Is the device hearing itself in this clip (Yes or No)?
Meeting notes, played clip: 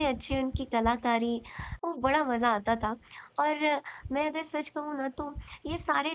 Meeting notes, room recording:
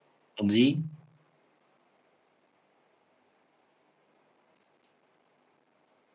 No